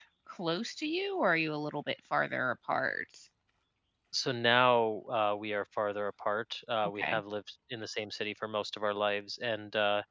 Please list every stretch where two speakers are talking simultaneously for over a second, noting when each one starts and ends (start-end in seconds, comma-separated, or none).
none